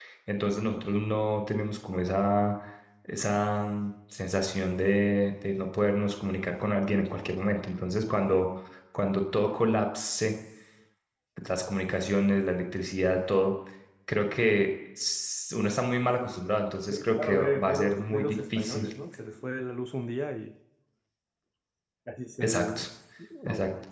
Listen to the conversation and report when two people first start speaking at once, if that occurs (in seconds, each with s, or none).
16.9 s